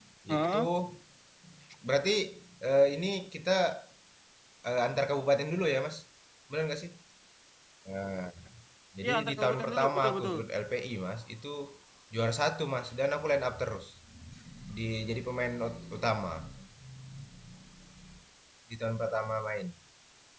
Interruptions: present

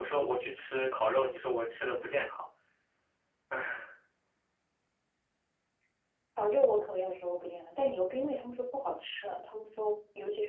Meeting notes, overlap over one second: none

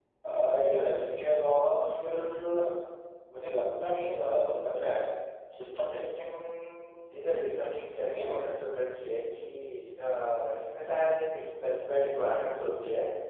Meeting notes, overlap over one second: present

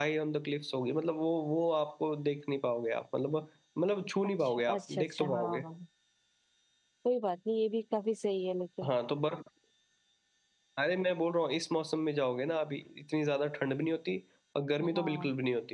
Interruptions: present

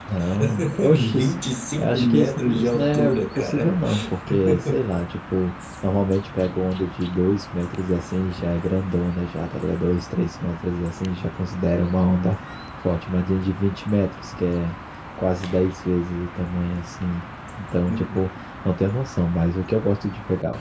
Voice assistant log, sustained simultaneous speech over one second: present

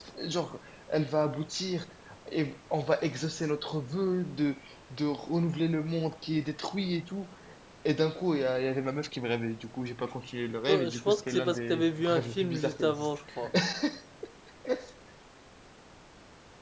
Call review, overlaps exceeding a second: present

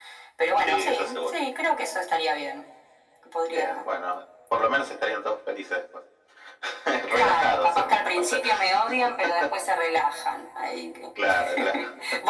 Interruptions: present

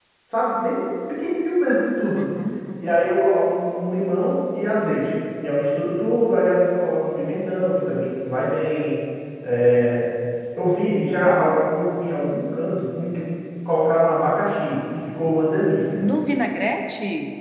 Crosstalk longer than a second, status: none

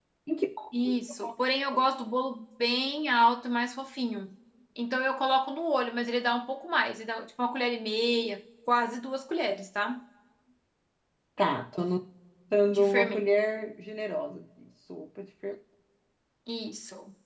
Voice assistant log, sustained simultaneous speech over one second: none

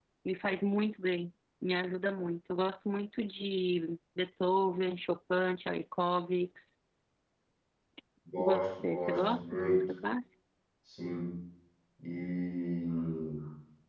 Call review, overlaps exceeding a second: present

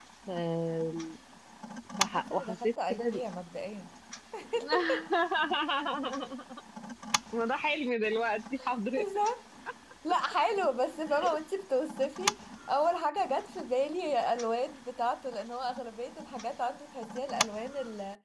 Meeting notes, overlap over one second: present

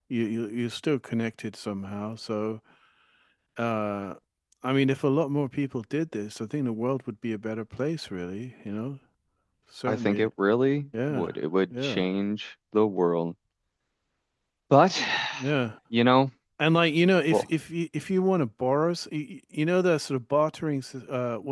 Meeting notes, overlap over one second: none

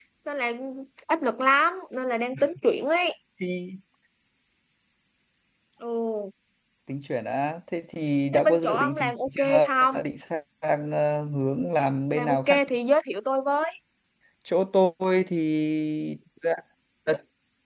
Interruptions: present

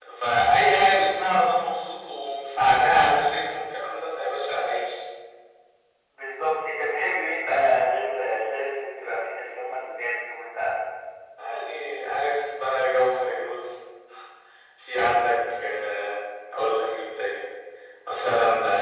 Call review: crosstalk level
none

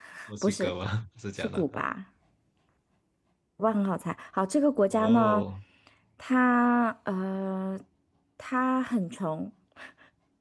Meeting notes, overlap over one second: none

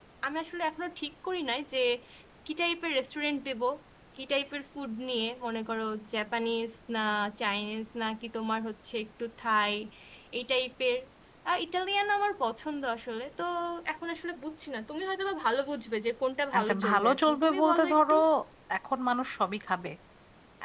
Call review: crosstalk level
present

